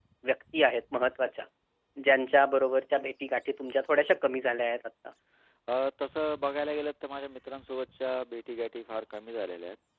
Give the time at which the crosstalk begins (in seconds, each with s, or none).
none